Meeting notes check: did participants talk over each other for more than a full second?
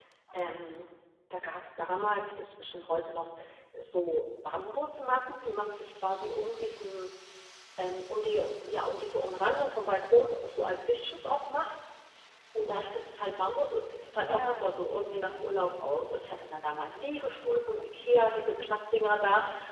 Yes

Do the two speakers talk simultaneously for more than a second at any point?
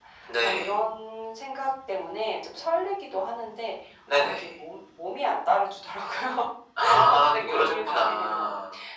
Yes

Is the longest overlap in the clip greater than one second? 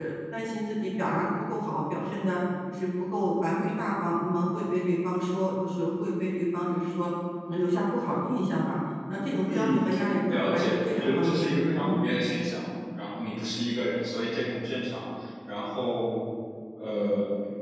Yes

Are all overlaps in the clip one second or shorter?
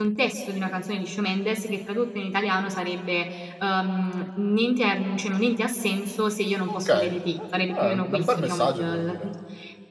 No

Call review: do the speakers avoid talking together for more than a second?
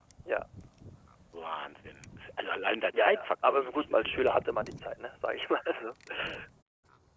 No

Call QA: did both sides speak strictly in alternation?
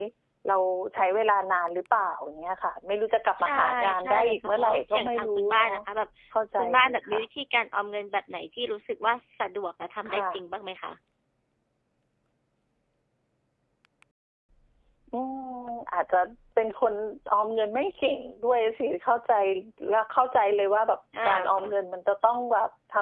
No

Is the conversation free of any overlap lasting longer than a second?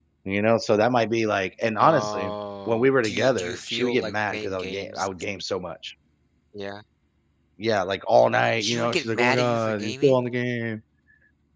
No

